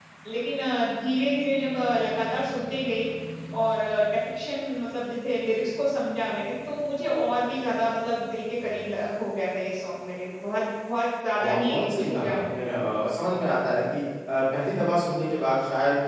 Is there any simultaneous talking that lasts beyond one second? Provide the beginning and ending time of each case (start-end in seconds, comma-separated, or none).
11.4-12.8